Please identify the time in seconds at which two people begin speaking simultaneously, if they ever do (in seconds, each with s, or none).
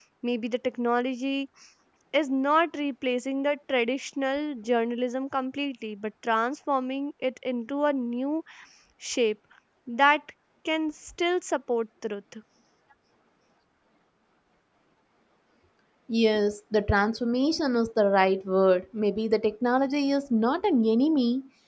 none